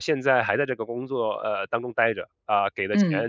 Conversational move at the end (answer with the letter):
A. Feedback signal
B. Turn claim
A